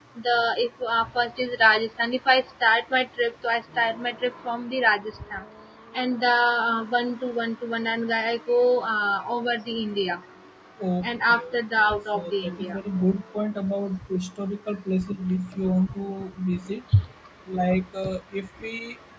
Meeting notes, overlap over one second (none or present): present